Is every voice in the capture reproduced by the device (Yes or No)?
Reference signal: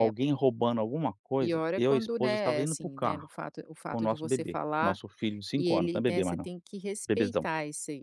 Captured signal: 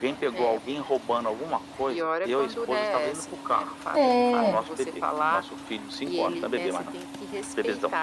No